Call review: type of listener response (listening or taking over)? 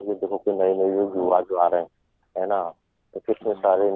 listening